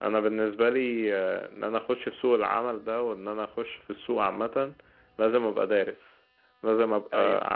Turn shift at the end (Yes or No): No